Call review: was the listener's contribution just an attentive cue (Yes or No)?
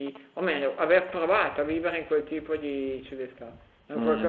No